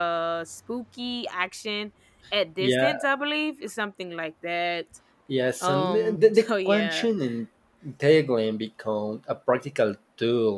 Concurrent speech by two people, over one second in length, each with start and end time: 5.6-7.1

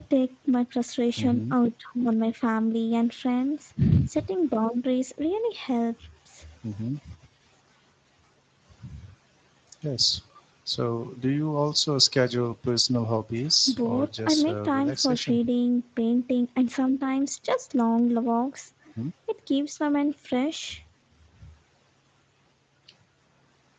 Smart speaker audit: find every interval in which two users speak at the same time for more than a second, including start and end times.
13.7-15.4

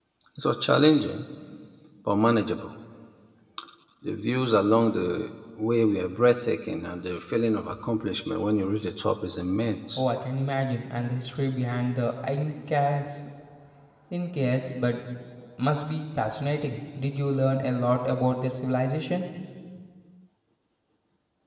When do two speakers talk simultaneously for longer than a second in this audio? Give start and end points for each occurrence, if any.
none

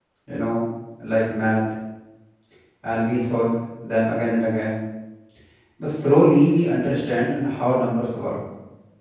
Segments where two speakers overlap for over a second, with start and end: none

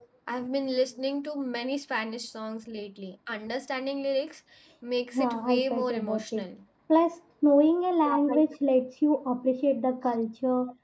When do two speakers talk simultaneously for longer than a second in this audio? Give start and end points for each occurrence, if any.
5.2-6.4

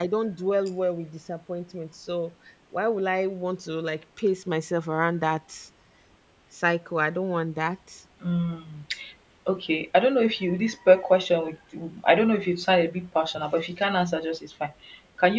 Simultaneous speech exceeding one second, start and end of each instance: none

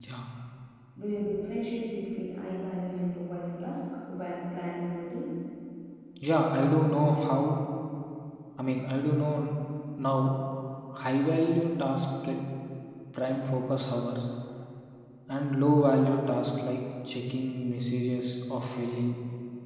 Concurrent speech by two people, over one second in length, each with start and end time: none

